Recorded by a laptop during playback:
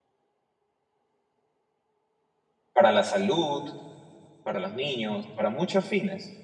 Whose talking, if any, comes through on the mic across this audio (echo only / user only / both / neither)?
user only